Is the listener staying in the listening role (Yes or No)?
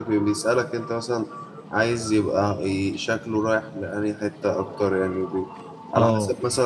Yes